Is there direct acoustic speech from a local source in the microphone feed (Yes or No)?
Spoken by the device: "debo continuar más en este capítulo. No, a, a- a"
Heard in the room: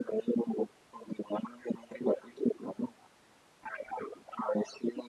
No